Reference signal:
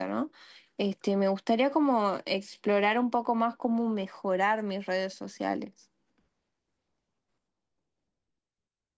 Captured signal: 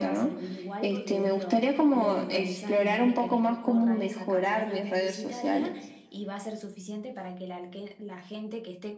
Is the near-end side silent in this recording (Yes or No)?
No